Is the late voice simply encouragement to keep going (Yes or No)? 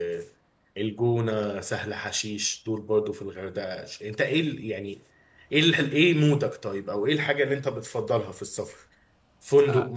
Yes